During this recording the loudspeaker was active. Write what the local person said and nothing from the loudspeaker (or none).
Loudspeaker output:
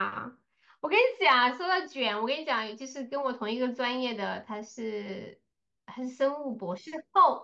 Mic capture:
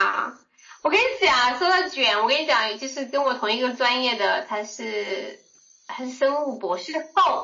none